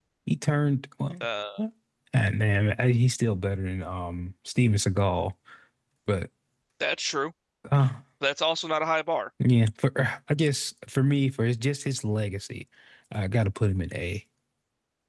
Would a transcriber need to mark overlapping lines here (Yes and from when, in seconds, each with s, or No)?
No